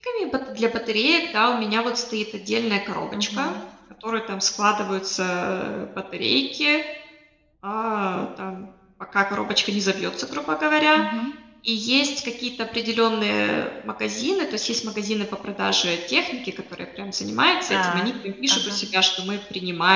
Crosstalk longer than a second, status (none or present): none